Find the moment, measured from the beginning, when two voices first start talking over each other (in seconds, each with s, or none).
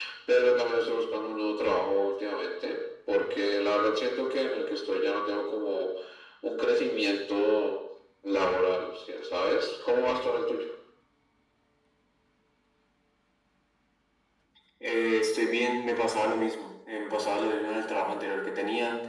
none